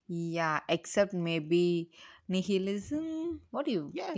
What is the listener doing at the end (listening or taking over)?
taking over